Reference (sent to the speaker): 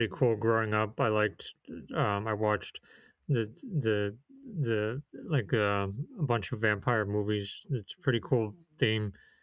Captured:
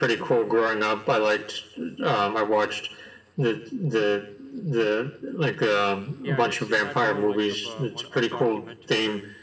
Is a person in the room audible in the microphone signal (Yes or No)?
Yes